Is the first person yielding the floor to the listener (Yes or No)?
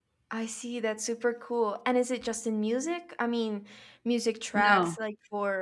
No